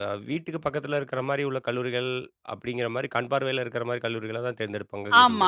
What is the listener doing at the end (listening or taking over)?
taking over